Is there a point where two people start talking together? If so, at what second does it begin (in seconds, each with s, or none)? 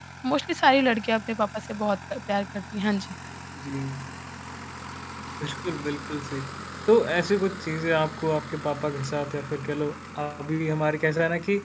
none